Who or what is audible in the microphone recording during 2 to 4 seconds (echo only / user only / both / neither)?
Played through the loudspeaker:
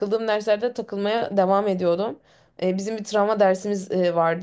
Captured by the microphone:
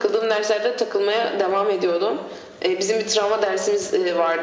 echo only